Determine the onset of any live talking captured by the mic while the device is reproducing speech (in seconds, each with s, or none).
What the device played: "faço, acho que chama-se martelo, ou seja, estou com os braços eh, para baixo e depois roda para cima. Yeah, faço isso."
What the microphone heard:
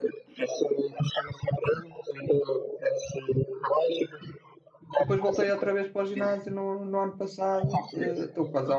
5.0 s